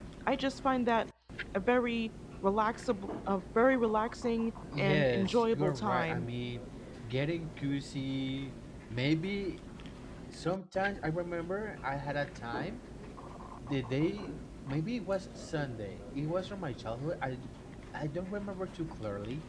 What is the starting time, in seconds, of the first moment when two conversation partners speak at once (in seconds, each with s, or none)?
4.7 s